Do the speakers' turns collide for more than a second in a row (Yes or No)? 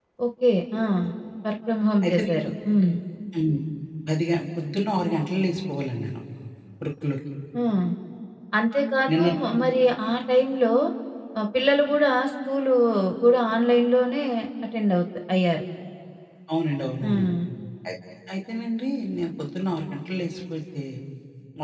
No